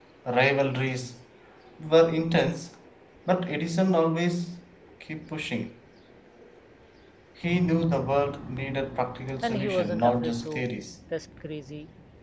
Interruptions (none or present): present